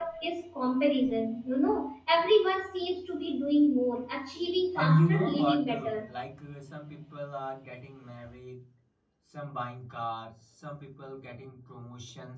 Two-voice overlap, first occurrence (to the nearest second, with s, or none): 5 s